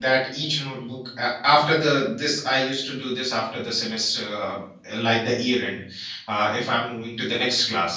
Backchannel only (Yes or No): Yes